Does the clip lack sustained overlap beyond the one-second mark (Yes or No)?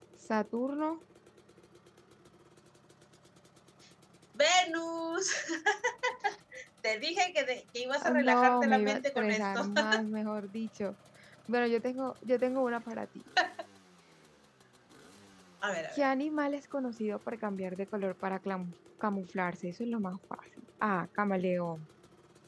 No